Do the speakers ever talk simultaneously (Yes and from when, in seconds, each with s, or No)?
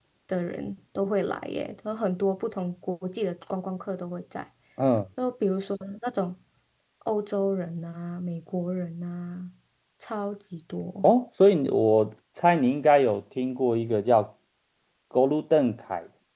No